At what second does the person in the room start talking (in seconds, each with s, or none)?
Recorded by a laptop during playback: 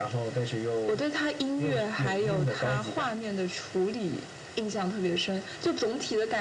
none